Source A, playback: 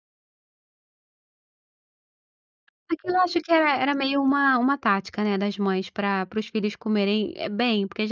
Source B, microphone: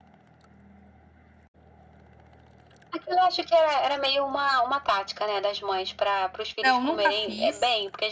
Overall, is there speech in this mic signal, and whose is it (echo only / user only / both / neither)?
both